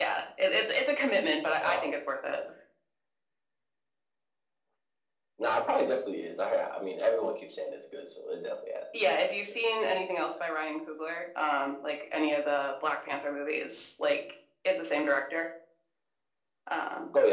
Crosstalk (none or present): present